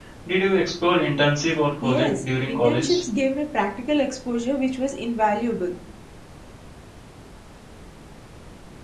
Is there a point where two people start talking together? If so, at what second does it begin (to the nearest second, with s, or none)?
2 s